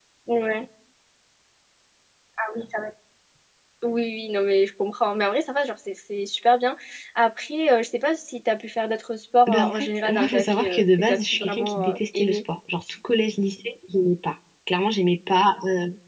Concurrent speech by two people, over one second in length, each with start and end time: 9.5-12.4

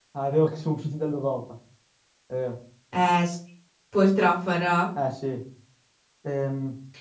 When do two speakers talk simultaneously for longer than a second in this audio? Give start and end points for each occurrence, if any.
none

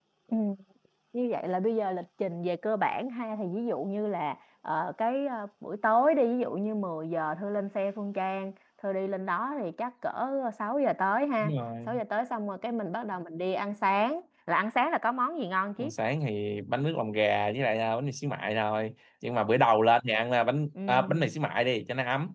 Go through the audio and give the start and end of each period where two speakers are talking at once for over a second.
none

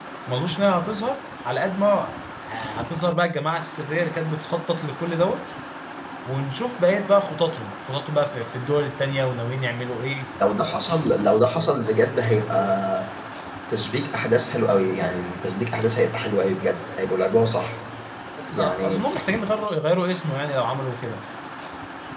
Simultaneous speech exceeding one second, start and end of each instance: none

